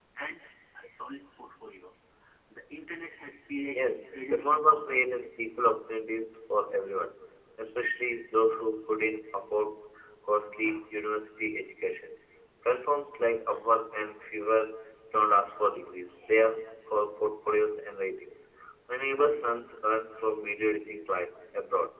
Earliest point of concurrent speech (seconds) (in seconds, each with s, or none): 3.8 s